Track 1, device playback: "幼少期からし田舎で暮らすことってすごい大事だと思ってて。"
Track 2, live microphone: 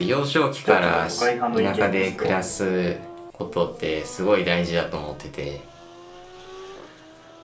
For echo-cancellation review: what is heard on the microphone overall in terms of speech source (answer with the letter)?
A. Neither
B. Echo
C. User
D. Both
D